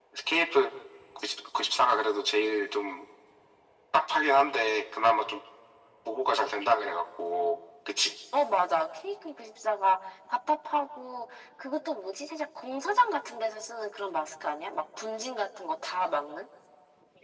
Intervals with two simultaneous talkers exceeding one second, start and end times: none

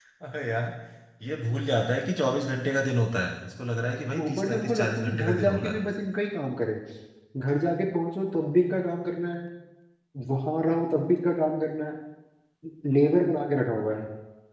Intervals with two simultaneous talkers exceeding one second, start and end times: 4.2-5.7

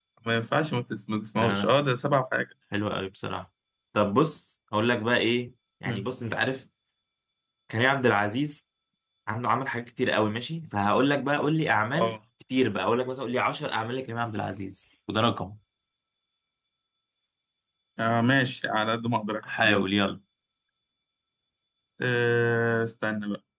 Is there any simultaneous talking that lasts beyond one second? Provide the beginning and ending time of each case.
none

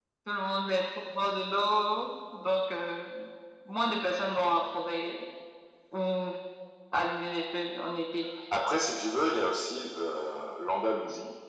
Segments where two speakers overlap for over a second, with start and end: none

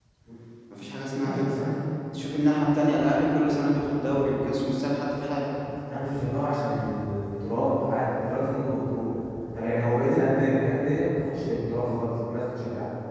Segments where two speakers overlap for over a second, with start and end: none

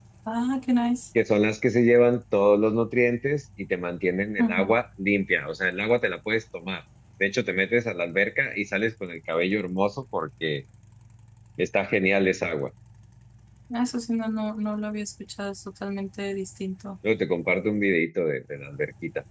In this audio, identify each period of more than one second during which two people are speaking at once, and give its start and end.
none

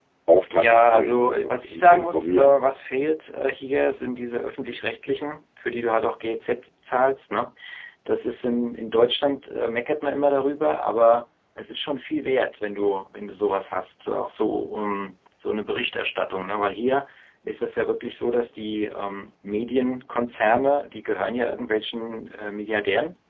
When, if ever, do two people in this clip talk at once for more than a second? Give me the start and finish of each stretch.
0.6-2.5

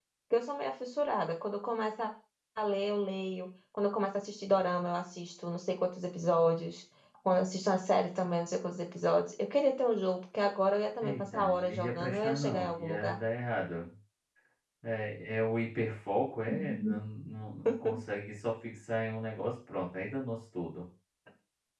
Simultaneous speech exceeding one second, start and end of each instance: 11.0-13.2

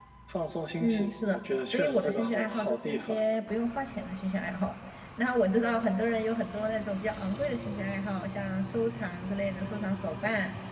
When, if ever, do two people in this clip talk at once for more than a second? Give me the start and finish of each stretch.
0.8-3.2

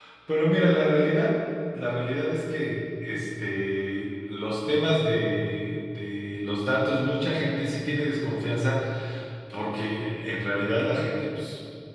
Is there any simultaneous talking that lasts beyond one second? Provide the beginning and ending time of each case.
none

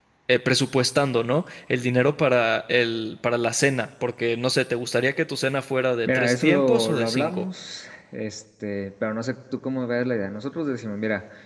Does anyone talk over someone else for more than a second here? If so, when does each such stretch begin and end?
6.1-7.4

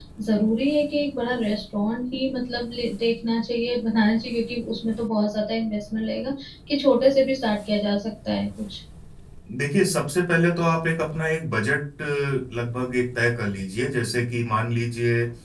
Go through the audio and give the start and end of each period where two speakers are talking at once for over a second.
none

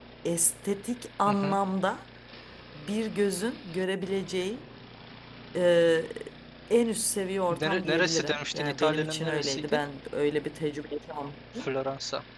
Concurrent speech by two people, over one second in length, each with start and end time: 7.5-9.8

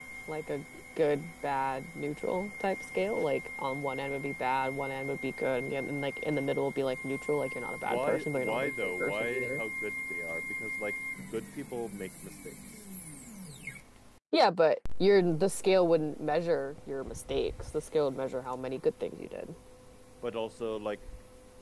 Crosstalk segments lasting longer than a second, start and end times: 7.8-9.6

